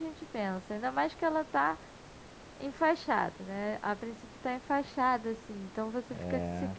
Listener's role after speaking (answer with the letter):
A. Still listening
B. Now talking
A